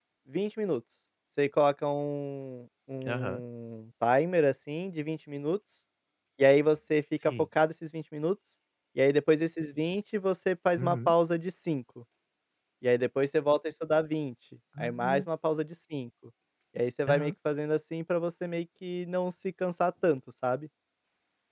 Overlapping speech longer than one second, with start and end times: none

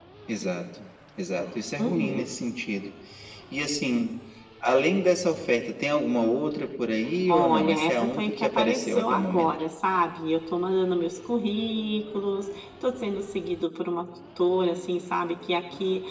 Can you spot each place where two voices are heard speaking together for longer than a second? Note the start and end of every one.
7.3-9.5

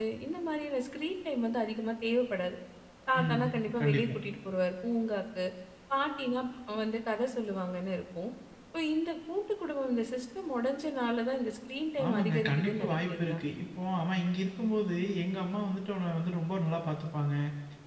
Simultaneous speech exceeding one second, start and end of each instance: 12.1-13.4

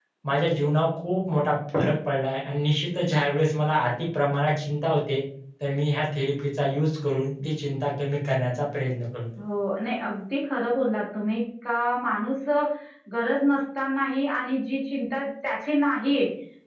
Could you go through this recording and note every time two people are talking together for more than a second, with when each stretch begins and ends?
none

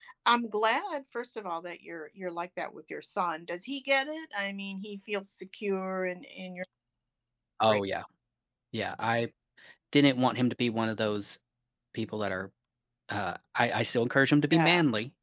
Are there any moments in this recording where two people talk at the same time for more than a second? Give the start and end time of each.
none

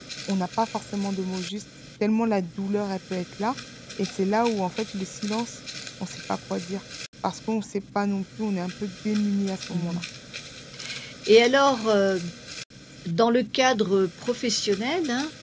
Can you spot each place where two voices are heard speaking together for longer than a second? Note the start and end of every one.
none

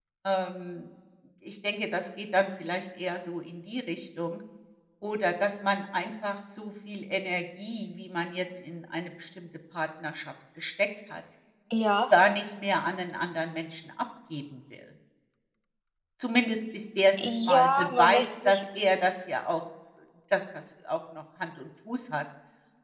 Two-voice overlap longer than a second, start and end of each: 17.2-18.6

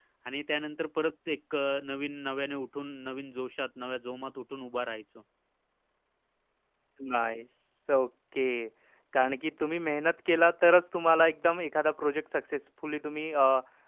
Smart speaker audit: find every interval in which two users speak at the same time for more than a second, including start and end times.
none

